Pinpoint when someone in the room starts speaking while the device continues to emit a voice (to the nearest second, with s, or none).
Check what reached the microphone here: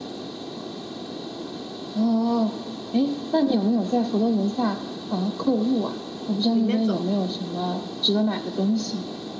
6 s